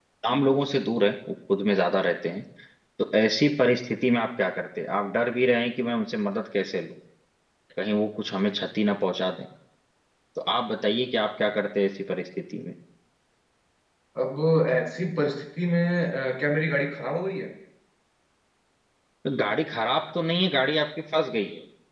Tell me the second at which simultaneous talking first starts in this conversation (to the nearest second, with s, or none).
none